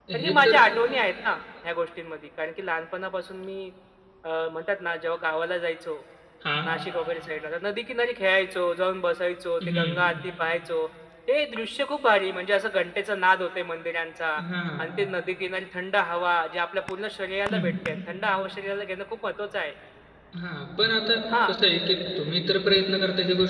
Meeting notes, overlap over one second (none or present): none